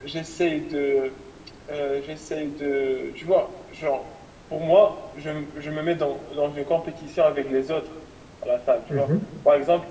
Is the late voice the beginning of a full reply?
No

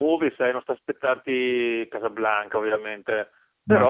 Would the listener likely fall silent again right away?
Yes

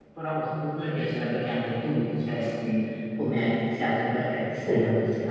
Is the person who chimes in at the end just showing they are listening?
Yes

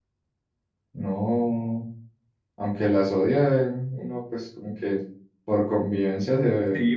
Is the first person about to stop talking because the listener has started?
Yes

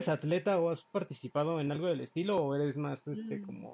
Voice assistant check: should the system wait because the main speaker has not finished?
No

